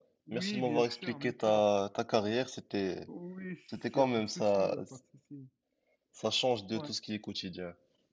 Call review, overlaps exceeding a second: present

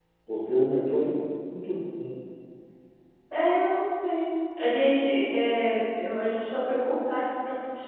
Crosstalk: none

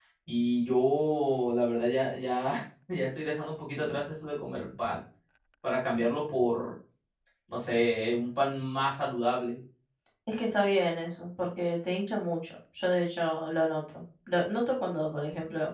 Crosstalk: none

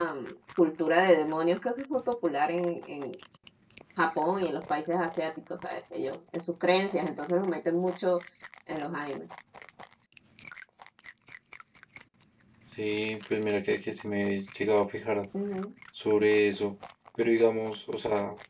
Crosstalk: none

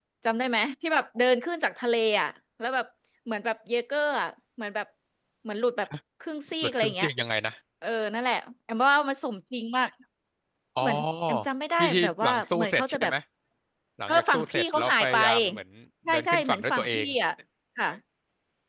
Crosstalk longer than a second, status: present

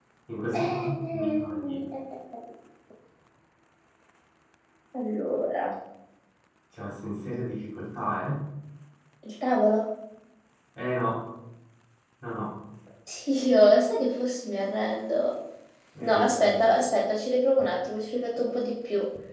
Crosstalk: present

